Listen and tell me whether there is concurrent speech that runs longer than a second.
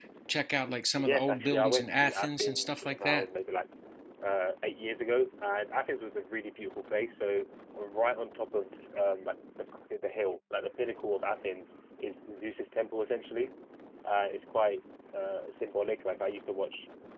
Yes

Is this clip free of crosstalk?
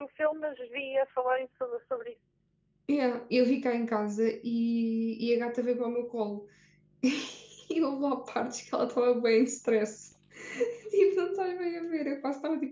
Yes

